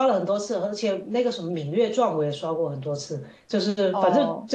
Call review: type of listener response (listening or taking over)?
listening